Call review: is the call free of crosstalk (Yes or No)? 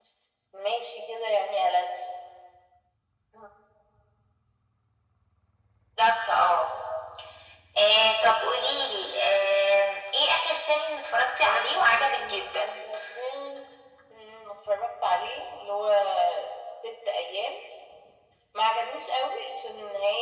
No